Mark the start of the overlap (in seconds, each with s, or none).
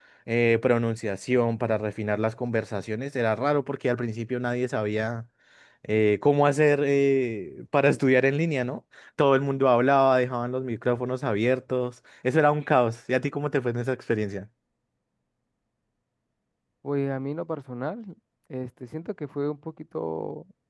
none